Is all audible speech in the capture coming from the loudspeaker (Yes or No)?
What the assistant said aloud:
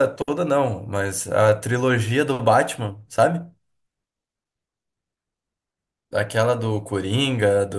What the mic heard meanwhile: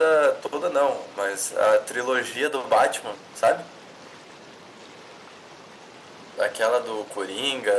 Yes